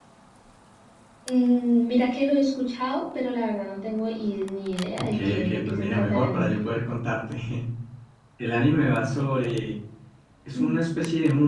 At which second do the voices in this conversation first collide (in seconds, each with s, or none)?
5.0 s